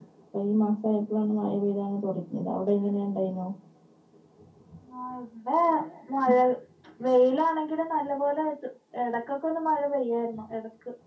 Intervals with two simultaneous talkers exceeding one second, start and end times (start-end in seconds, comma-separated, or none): none